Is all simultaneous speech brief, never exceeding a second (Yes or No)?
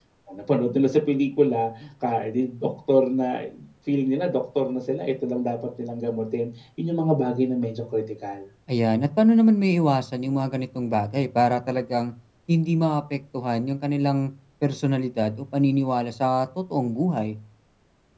Yes